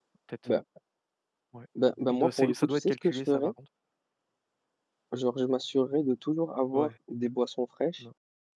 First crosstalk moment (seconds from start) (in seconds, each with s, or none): 2.1 s